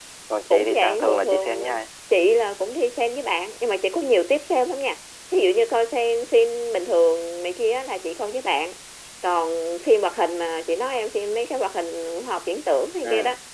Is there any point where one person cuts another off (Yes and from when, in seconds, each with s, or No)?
Yes, from 0.5 s